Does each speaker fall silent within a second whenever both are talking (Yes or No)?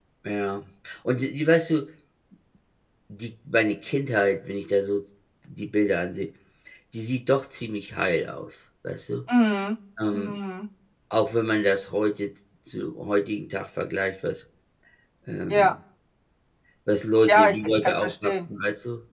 No